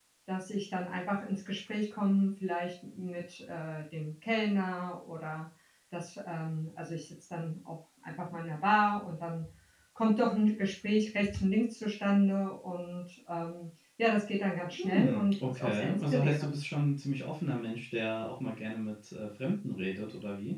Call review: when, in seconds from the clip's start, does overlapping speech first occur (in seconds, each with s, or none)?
14.7 s